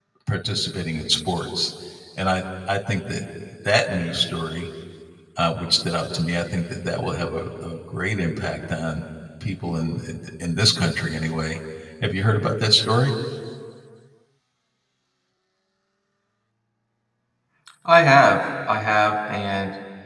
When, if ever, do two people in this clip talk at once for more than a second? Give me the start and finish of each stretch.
none

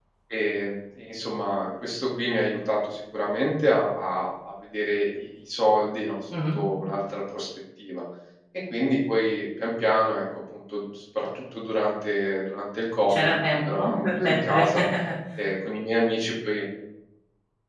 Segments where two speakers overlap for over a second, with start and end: 13.1-14.7

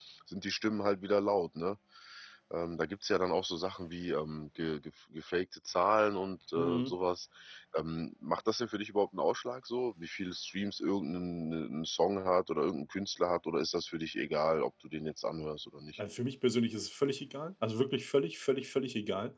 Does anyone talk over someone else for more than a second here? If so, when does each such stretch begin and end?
none

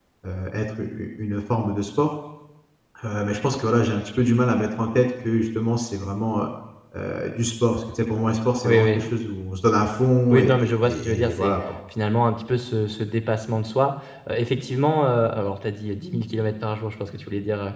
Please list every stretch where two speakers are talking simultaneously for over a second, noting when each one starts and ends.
10.3-11.5

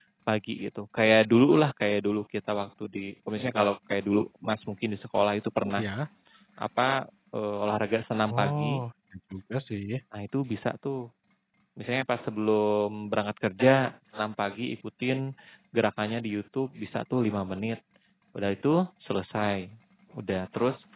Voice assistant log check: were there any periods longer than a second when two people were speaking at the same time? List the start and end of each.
none

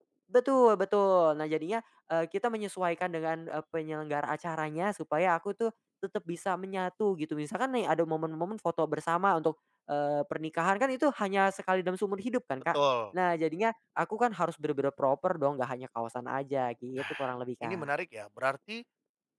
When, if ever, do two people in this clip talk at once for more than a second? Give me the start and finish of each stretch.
none

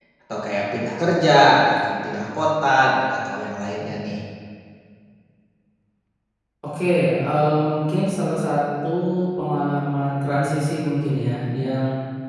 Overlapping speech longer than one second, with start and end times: none

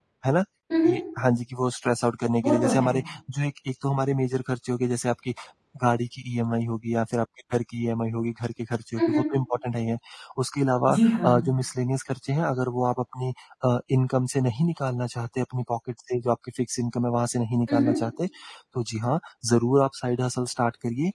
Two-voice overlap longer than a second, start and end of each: none

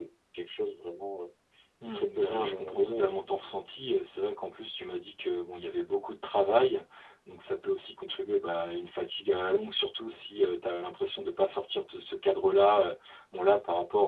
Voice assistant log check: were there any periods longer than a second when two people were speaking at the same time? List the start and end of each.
1.9-3.2

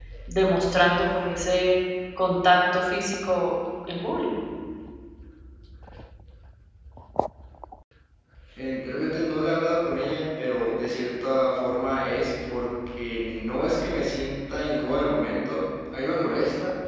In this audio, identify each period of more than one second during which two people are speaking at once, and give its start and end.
none

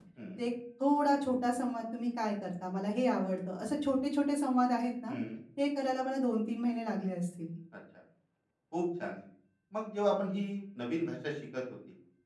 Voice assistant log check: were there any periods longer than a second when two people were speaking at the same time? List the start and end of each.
none

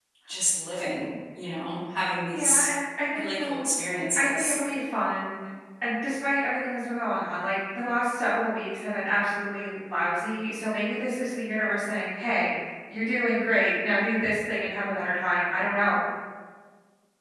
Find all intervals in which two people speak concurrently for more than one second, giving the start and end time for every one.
none

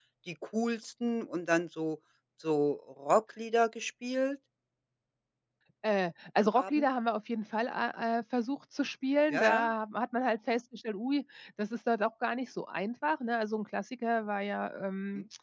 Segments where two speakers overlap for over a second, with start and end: none

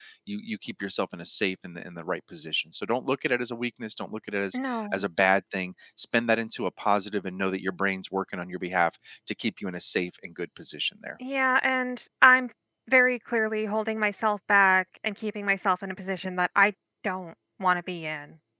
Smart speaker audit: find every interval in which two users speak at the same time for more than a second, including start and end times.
none

